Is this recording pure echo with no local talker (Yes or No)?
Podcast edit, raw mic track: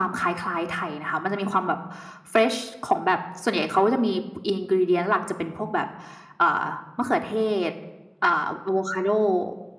Yes